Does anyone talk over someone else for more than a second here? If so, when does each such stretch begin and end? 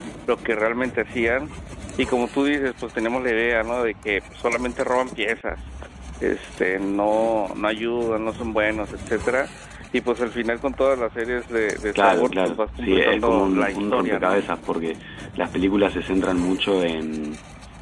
12.0-14.4

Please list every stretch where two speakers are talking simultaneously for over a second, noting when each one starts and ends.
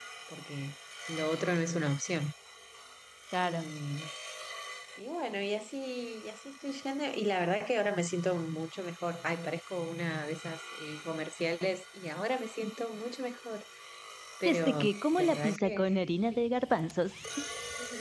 14.4-15.8

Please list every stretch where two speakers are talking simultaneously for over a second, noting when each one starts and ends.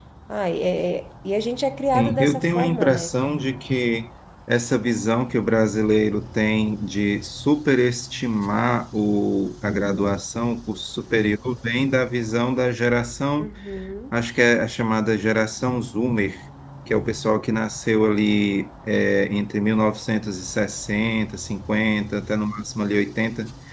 1.9-3.1

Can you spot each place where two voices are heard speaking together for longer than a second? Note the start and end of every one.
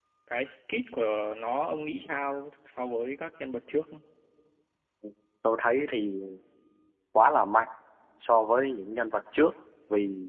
none

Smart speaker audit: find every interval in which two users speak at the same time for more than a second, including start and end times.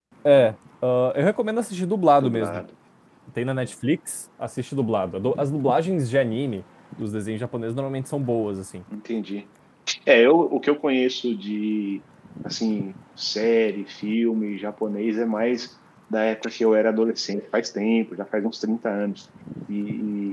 none

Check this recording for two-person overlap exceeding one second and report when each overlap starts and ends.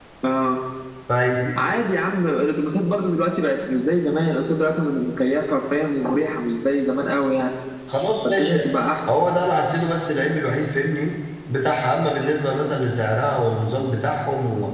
none

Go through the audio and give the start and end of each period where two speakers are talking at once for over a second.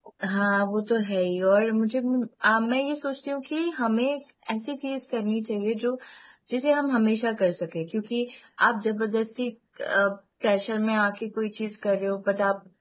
none

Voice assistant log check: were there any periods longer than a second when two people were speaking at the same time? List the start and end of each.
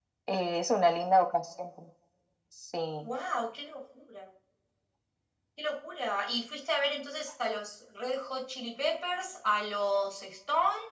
none

